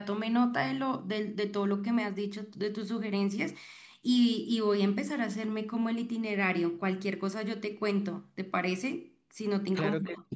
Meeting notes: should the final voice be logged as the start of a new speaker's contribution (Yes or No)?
Yes